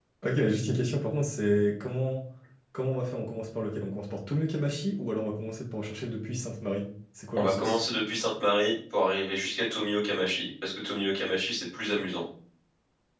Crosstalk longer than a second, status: none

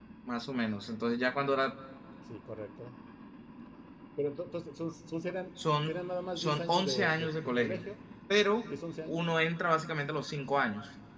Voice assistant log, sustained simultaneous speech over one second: present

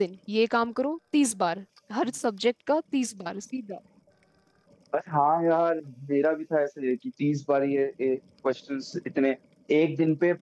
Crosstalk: none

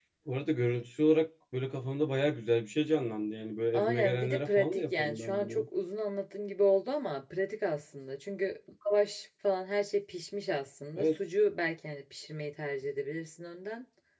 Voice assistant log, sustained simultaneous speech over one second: present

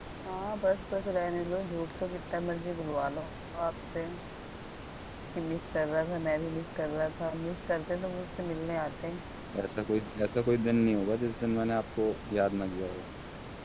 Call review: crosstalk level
none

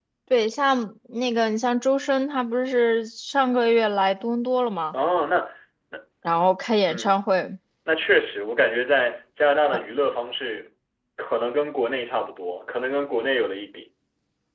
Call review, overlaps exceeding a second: none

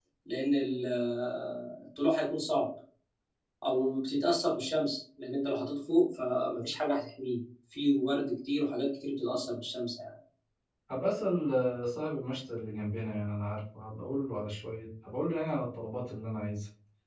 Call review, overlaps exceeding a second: none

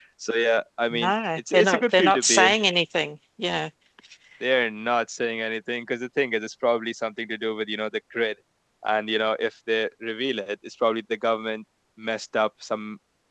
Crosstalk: present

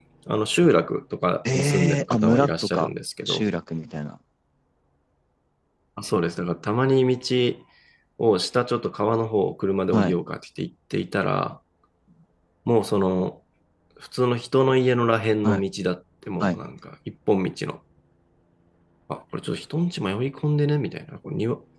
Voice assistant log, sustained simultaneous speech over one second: present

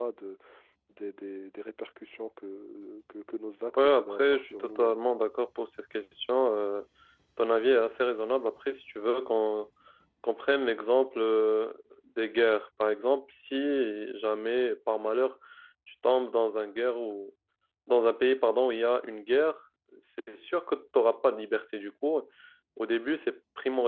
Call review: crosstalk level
present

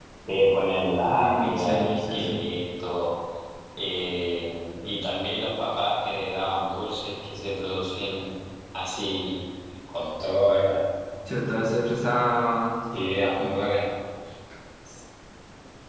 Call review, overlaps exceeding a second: present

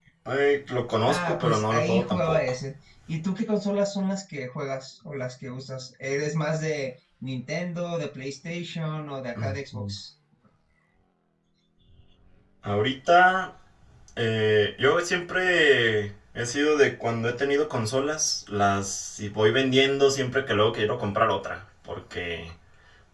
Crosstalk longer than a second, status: present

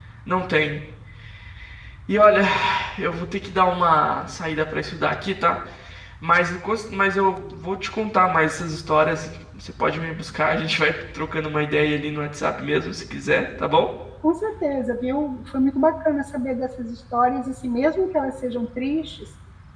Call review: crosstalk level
none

